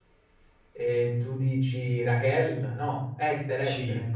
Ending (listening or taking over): taking over